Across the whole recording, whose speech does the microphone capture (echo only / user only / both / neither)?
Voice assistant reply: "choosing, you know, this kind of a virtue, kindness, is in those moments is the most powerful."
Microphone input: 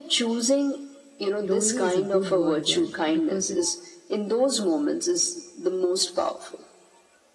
both